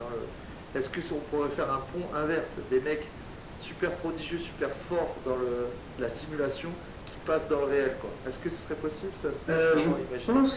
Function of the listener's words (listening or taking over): taking over